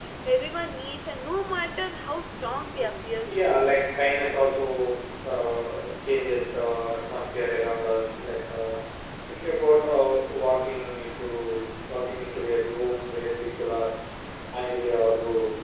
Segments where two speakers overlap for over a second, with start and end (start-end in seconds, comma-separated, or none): none